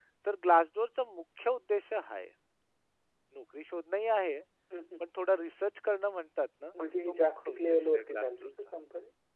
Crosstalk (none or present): present